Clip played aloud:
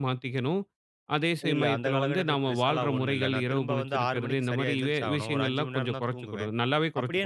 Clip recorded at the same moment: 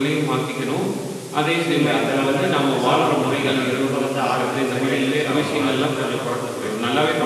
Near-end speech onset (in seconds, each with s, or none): 2.9 s